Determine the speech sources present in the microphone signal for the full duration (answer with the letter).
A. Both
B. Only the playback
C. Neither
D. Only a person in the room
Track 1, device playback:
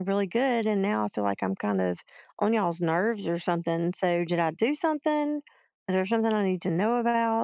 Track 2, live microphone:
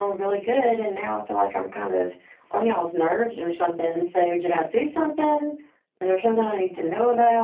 B